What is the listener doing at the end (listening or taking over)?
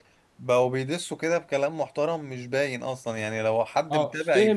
taking over